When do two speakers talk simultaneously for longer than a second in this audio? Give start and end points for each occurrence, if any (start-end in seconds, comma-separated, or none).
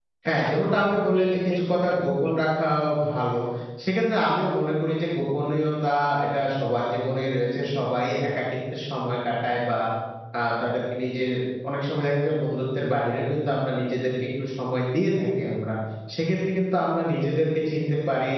0.5-2.4